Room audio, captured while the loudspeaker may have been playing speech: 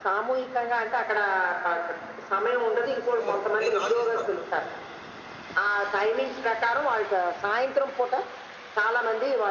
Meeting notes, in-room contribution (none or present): present